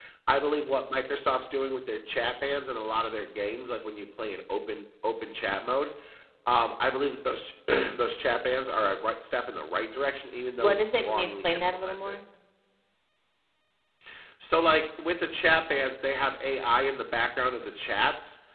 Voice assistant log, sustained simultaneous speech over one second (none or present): present